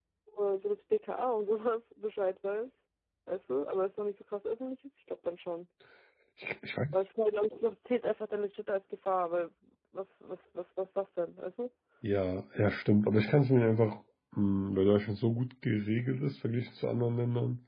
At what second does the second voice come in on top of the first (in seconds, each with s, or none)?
none